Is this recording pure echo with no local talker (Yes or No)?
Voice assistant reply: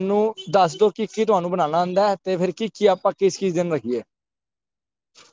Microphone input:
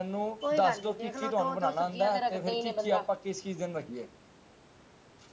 No